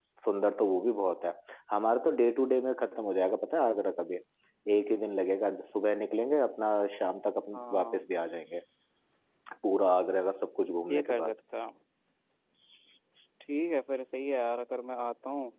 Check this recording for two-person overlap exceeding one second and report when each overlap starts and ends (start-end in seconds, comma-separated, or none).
none